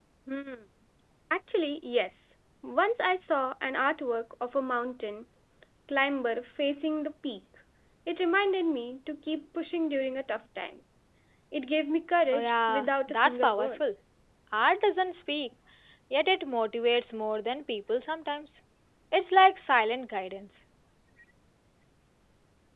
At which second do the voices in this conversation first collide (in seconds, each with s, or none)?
12.3 s